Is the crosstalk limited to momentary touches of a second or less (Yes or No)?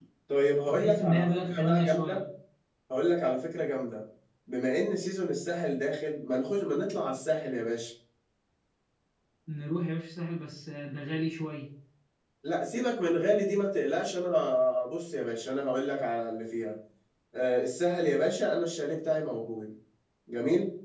No